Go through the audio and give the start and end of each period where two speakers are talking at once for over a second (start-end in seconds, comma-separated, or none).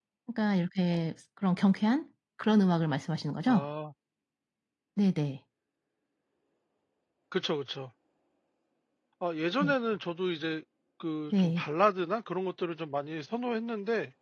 none